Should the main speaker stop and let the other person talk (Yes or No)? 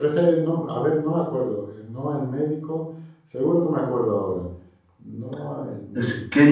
Yes